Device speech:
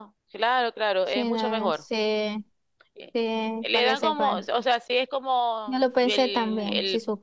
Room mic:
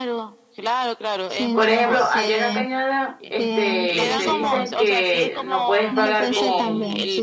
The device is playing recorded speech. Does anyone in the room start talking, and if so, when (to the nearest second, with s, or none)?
2 s